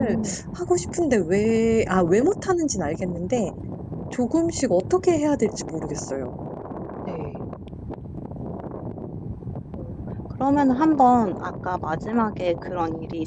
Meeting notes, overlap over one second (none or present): none